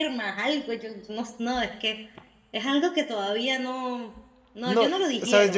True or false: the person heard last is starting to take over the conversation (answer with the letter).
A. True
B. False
A